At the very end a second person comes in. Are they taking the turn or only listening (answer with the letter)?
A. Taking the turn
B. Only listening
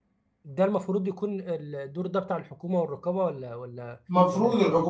A